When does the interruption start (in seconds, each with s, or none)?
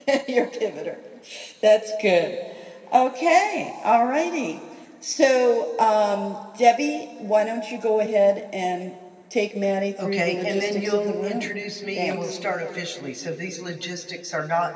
10.0 s